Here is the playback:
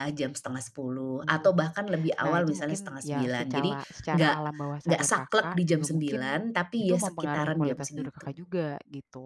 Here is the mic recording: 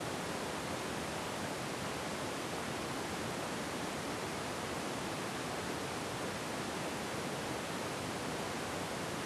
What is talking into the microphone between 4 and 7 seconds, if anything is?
neither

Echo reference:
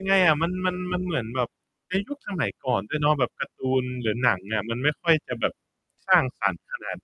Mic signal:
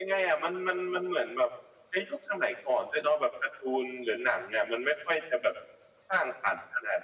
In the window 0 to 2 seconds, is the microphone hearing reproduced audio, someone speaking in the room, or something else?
echo only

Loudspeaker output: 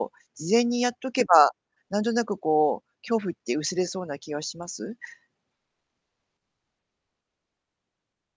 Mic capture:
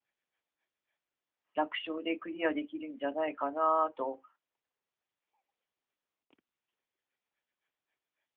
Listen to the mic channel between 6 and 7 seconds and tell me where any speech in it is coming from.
neither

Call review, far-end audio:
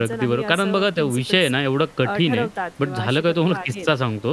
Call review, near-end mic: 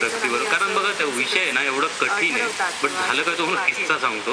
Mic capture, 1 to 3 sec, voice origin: echo only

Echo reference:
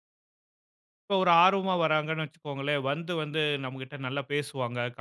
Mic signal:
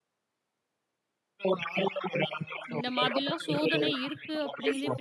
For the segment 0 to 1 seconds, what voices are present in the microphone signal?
neither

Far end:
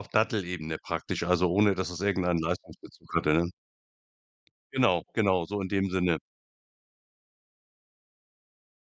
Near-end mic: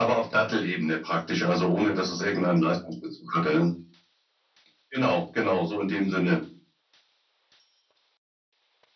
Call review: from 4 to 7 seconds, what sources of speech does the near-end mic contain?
echo only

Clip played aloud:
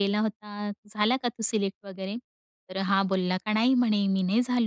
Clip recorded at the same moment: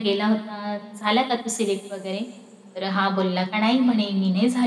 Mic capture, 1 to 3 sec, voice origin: echo only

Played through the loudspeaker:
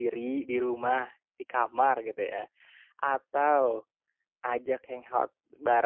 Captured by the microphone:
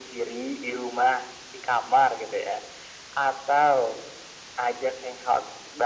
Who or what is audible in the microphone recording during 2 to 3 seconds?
echo only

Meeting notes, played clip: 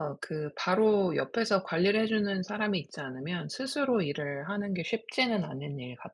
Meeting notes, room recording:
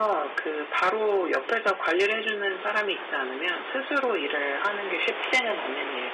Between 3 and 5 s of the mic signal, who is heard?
echo only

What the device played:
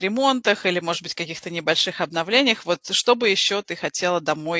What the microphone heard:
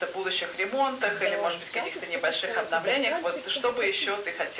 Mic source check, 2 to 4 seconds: both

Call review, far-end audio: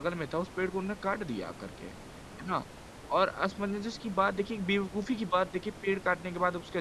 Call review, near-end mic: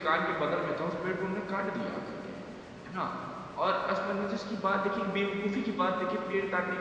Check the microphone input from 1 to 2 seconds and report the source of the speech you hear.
echo only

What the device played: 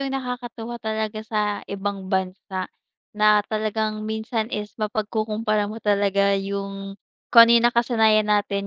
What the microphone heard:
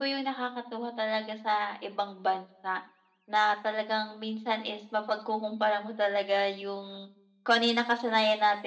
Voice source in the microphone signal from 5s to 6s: echo only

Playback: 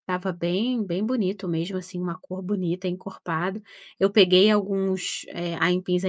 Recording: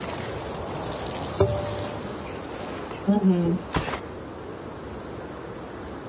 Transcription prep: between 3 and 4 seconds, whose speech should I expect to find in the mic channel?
user only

